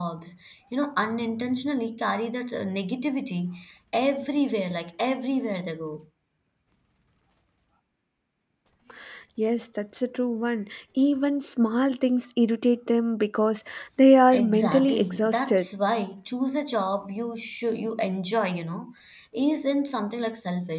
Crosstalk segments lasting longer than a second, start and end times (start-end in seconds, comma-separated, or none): 14.3-15.7